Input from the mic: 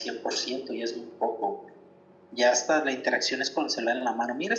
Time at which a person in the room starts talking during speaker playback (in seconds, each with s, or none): none